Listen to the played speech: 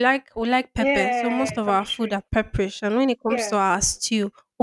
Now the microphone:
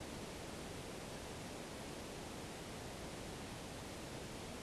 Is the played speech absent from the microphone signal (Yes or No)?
Yes